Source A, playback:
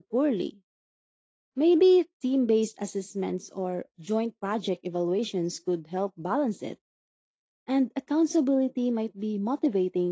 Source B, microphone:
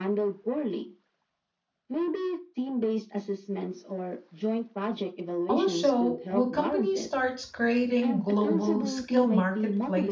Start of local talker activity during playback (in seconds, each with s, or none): 5.5 s